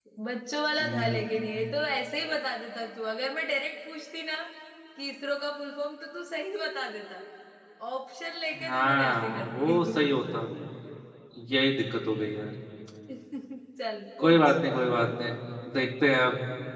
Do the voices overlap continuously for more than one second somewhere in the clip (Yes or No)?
Yes